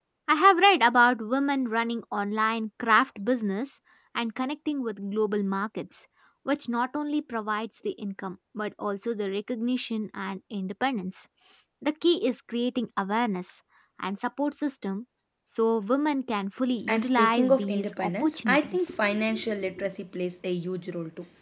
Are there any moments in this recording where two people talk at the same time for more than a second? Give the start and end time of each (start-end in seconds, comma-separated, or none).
16.9-18.9